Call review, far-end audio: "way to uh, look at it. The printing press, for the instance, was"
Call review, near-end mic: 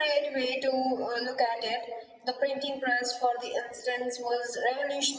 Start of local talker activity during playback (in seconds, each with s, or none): none